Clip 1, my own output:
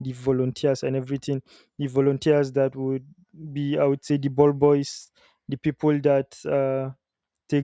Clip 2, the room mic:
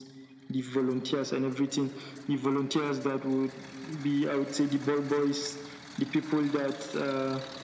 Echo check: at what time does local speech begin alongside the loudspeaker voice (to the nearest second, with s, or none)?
none